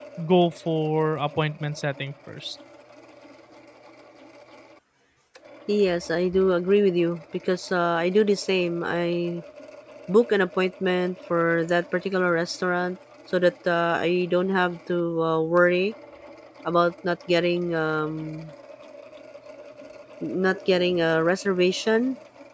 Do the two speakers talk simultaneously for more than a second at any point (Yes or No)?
No